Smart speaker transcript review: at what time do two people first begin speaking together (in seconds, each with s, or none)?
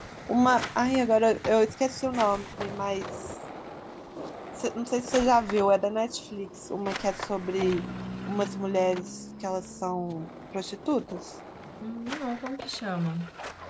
none